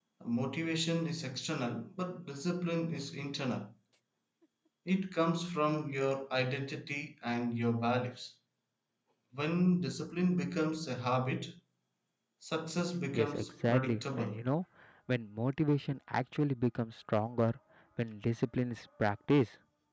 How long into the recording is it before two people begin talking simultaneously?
13.1 s

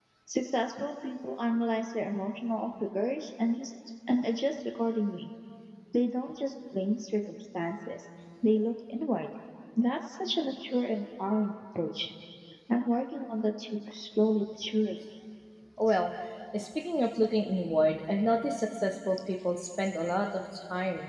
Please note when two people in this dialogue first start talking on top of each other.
none

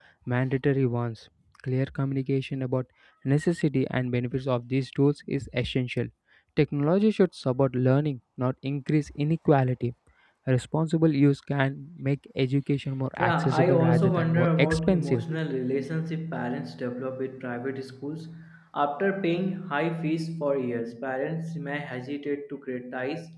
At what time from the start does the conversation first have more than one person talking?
13.2 s

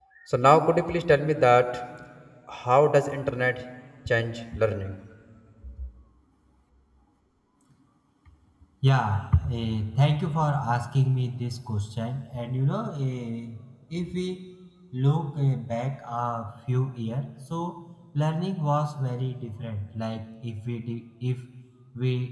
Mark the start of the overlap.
none

